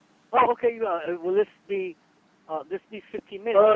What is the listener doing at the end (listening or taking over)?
taking over